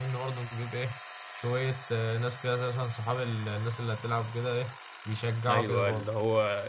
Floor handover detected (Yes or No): Yes